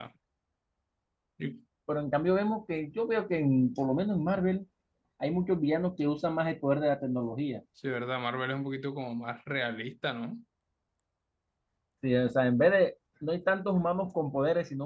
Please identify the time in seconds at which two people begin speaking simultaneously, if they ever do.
none

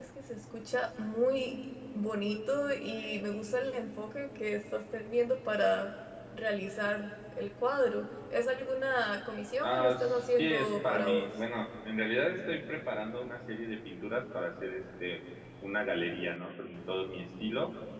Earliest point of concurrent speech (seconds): 9.6 s

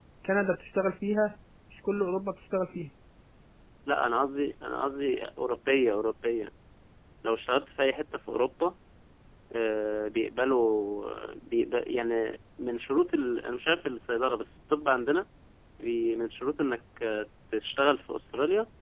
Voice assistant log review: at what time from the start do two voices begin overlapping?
none

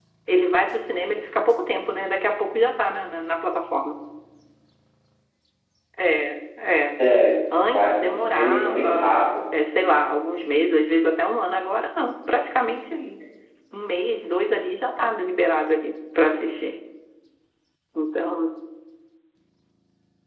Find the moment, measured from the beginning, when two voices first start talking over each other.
7.6 s

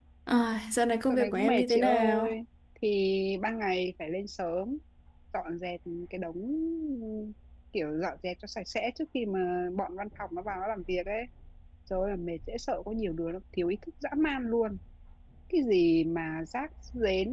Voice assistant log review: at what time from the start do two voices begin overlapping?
1.1 s

